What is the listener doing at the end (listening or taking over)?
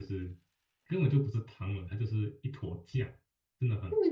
taking over